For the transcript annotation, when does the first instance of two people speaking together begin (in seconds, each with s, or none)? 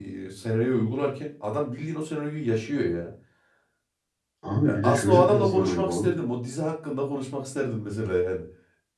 4.7 s